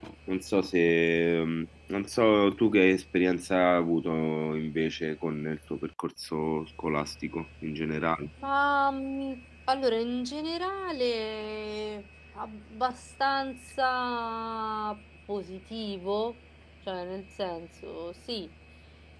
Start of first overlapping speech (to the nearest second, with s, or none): none